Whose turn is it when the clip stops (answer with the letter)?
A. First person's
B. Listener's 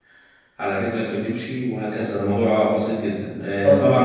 A